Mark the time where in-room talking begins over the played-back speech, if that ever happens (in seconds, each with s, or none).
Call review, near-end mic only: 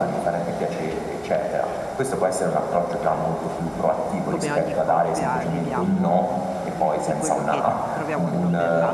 4.2 s